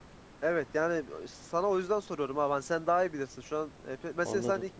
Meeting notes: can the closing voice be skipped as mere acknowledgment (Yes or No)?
Yes